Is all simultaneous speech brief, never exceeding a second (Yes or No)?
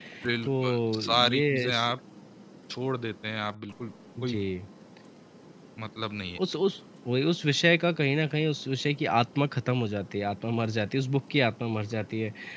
No